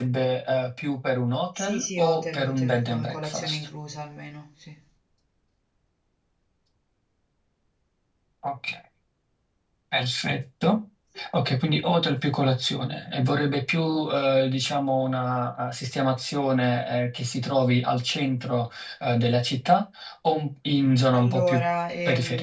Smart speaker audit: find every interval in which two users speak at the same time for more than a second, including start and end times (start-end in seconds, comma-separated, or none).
1.6-3.7